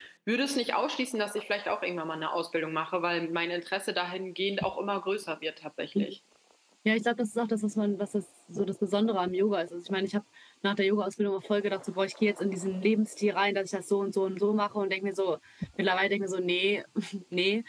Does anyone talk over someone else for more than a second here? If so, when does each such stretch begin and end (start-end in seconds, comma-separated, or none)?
none